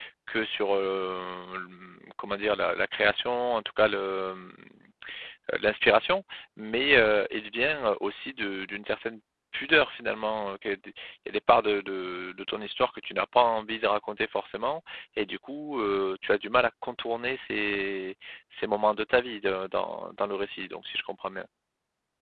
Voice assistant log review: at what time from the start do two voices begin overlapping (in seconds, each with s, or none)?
none